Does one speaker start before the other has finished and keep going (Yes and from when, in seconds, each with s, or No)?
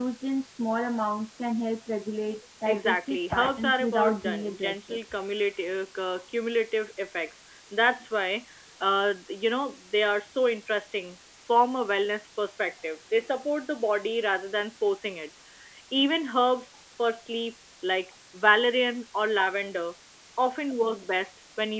Yes, from 2.6 s